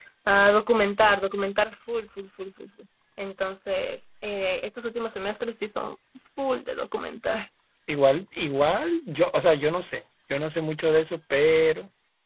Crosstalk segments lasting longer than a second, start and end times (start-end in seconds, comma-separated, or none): none